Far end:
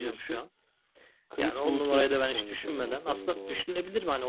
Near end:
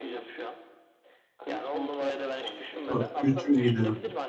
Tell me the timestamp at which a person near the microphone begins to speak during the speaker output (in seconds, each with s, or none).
2.9 s